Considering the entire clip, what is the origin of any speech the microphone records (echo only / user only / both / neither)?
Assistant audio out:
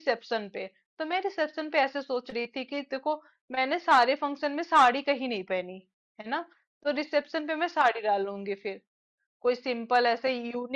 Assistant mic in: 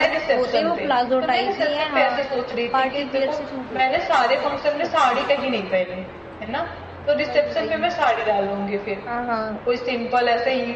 both